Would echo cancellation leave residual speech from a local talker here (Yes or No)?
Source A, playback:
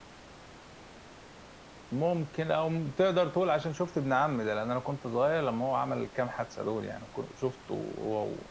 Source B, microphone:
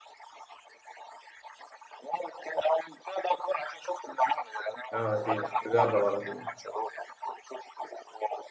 Yes